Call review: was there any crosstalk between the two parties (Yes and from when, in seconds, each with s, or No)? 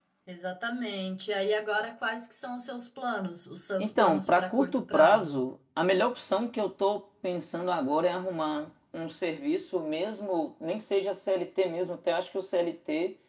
Yes, from 3.8 s